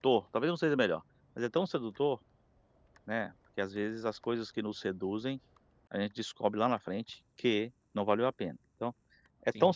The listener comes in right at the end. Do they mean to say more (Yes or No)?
No